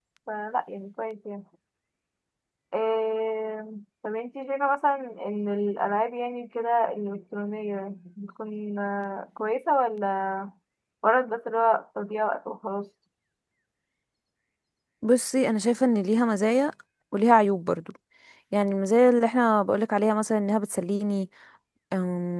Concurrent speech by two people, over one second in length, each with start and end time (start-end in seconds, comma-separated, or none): none